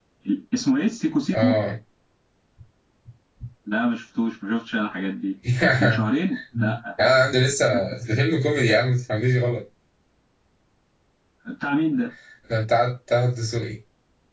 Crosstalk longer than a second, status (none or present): none